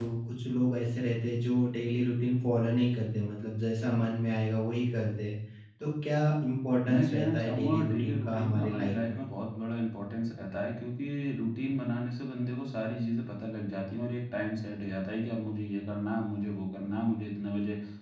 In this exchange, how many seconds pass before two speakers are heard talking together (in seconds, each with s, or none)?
6.8 s